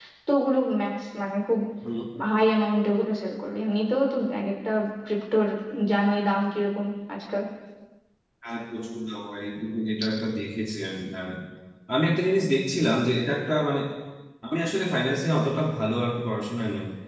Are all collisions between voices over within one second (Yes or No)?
Yes